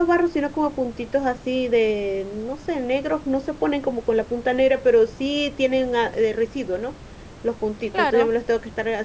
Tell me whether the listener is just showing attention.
Yes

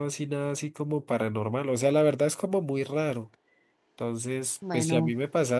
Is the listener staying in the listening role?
Yes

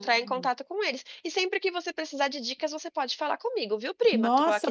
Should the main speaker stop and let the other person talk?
Yes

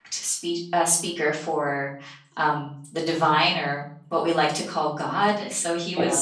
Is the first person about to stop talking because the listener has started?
No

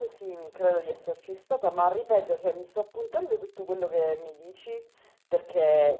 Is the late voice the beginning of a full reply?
No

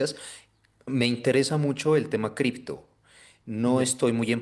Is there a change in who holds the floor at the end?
No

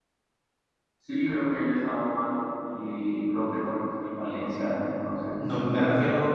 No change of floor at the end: No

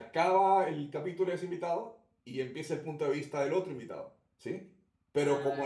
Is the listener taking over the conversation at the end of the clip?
No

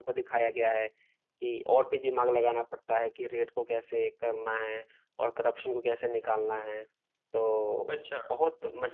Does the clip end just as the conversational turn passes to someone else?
No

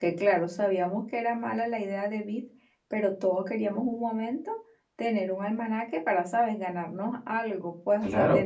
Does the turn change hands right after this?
Yes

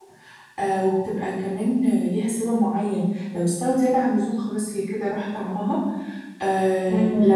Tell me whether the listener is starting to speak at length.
No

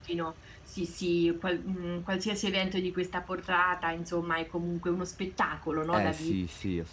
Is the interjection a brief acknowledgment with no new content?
No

